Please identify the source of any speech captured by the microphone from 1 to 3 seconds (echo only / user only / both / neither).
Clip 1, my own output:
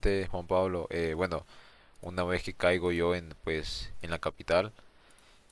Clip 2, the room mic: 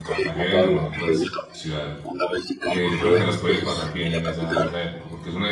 both